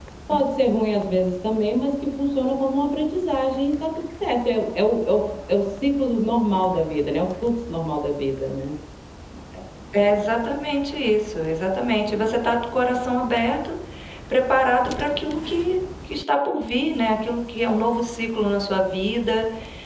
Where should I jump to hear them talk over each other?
none

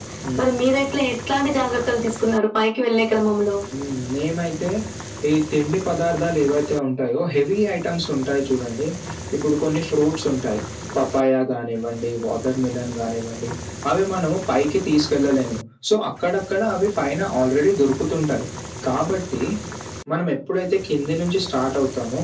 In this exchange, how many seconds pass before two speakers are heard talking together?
none

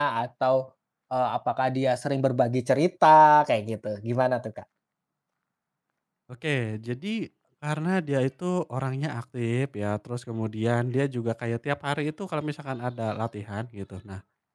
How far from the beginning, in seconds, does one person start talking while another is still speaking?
none

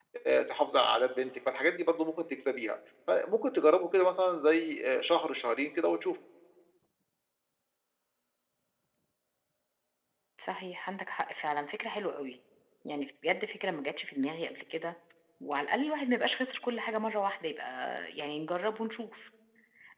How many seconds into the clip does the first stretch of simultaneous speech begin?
none

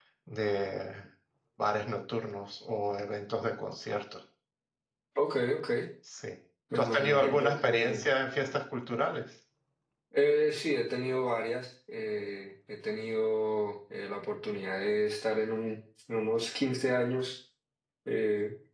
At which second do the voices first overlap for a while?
6.8 s

